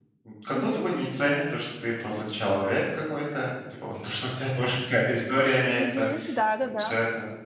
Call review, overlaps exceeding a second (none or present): none